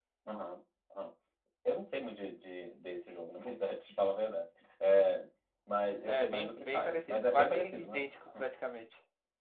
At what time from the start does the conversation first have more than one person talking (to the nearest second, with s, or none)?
6 s